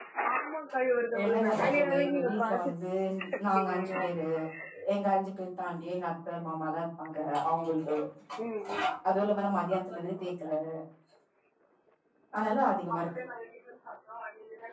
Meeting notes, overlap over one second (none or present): present